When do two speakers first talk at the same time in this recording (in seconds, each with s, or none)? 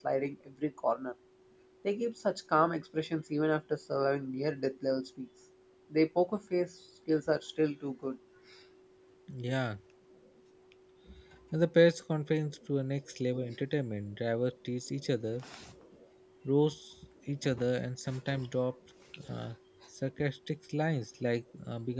none